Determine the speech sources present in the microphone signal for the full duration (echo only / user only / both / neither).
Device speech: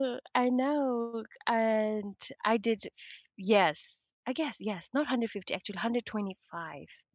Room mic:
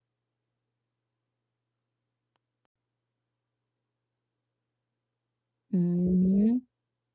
user only